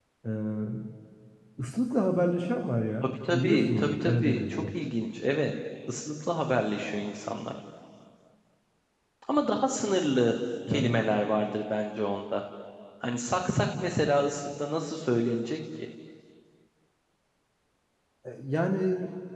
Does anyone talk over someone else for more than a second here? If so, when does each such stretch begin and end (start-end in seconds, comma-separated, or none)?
3.0-4.7